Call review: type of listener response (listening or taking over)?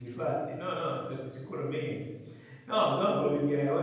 listening